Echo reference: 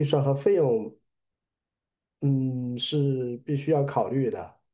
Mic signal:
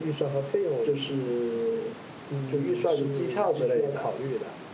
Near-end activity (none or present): present